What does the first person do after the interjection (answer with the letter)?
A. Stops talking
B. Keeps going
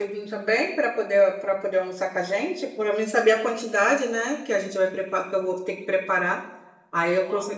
A